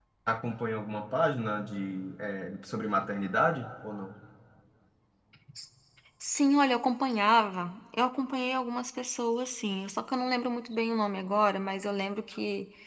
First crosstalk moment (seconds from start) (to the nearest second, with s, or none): none